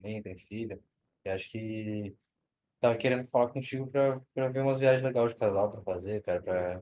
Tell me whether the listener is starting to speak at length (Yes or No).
No